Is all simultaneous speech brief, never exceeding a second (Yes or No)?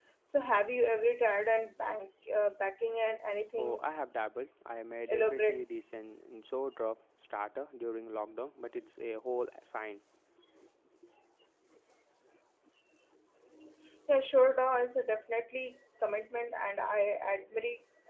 Yes